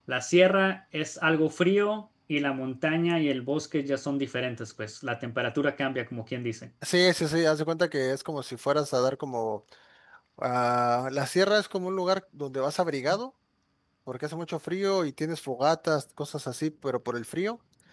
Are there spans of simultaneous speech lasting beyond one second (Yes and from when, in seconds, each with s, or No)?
No